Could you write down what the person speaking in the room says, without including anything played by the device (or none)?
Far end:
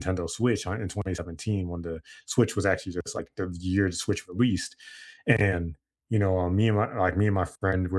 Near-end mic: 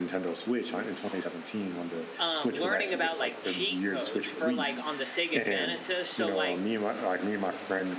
um, learning about like cheat codes for like on the Sega Genesis. So like